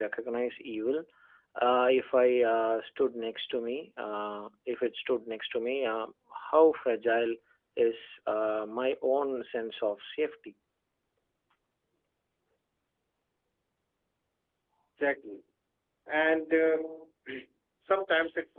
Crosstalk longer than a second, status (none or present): none